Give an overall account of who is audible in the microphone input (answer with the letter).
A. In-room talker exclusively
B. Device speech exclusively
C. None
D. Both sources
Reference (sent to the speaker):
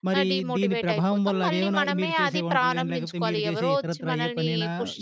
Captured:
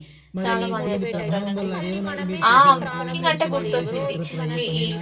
D